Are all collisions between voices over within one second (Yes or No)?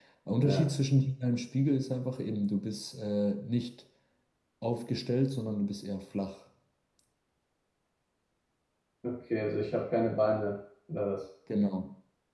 Yes